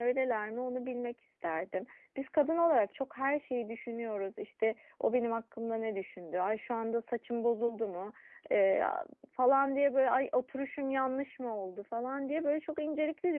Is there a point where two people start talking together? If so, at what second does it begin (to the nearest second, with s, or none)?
none